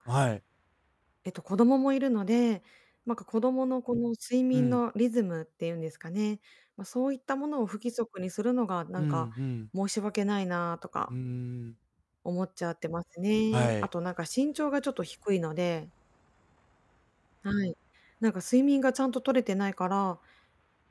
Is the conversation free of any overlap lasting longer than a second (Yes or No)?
Yes